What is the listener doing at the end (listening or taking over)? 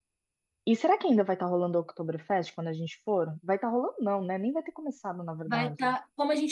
taking over